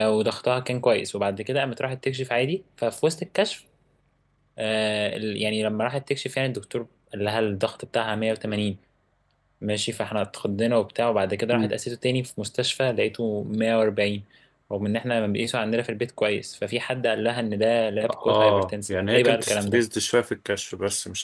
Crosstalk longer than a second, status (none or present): present